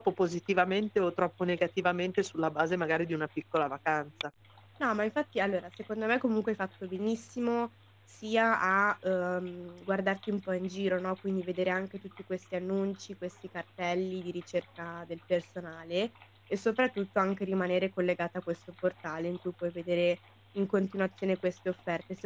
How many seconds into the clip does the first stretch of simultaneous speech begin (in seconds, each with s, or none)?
none